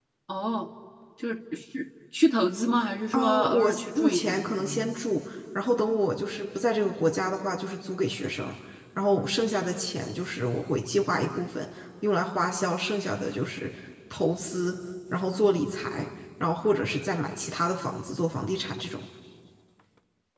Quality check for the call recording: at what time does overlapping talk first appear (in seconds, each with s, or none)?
3.1 s